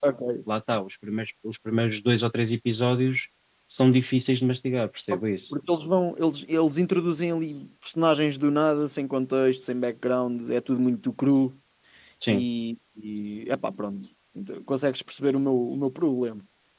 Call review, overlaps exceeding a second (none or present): none